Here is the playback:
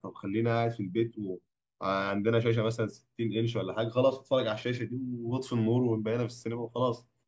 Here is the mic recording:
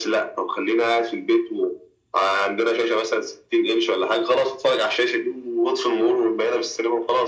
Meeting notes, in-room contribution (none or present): none